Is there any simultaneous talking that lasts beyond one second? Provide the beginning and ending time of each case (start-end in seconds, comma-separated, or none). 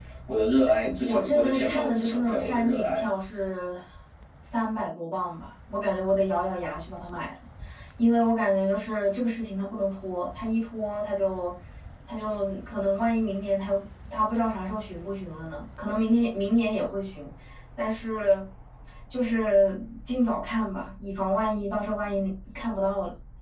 1.1-3.1